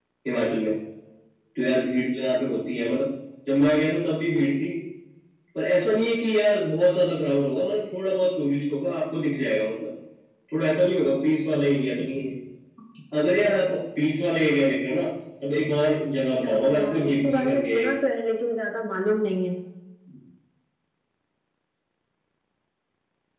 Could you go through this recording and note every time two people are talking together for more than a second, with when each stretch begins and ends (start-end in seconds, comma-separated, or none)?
16.4-17.8